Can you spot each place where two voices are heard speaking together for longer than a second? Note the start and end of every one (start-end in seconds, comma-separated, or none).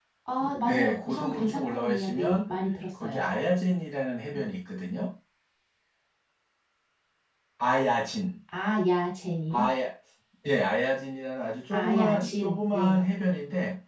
0.6-2.5, 11.7-13.0